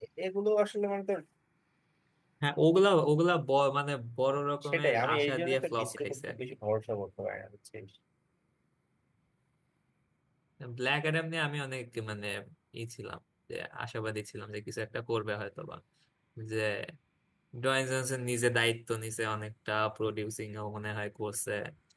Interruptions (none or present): present